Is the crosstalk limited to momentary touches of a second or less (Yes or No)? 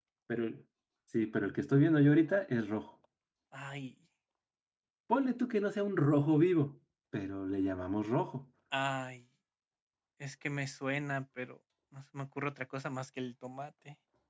Yes